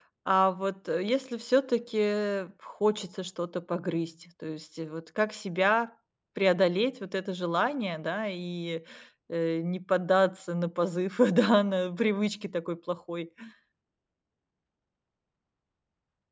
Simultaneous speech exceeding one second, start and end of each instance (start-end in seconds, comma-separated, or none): none